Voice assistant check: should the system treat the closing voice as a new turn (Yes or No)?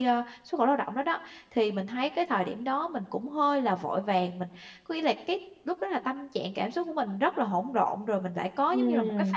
Yes